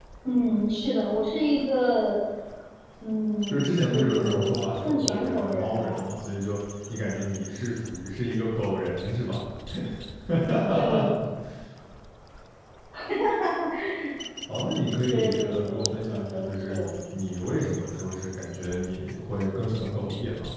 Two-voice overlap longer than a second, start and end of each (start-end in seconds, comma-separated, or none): 3.5-6.1, 15.1-16.8